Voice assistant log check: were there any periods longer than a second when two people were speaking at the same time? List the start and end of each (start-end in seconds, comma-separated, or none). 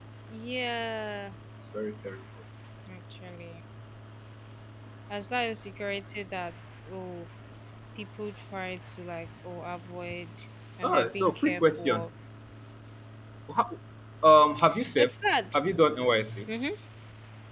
10.8-12.1